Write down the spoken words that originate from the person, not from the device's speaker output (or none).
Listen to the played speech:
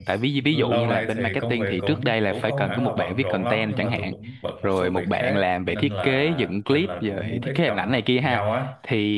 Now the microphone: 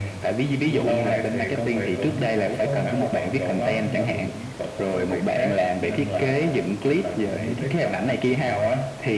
none